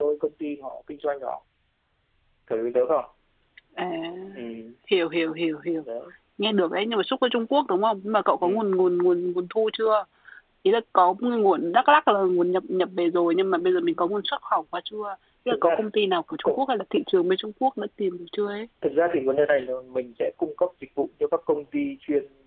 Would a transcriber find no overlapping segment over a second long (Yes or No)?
Yes